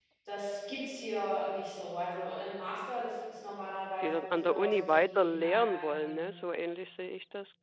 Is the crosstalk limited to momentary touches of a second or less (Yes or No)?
No